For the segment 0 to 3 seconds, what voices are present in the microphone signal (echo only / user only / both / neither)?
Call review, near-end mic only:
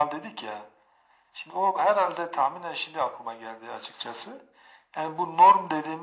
echo only